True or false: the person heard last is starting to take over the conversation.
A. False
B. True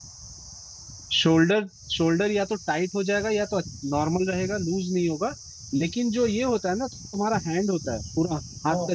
A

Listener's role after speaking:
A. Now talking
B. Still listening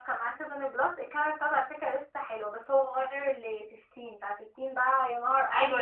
A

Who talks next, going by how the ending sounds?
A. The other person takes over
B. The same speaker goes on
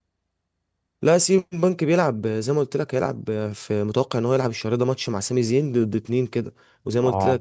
B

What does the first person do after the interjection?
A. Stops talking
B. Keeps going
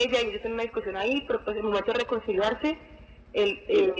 B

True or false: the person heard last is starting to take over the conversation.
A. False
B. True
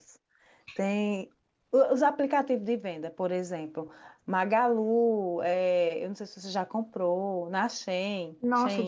B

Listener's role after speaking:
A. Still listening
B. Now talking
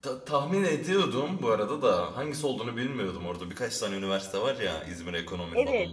B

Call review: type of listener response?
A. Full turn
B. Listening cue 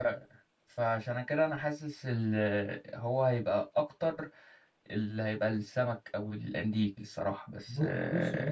A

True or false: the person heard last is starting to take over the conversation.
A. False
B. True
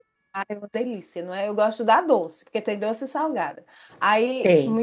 A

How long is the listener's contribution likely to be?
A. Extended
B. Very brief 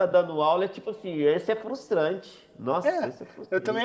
A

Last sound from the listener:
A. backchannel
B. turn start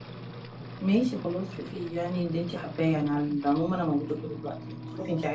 A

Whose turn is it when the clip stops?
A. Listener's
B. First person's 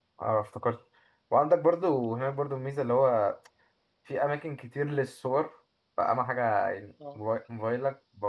B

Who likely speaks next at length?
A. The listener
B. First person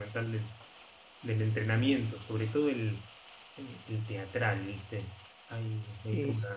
B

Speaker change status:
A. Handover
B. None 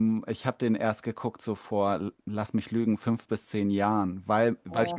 B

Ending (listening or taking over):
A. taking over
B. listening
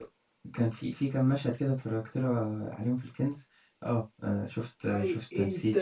A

